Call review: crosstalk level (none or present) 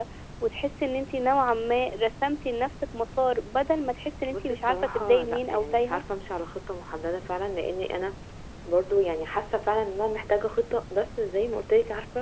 present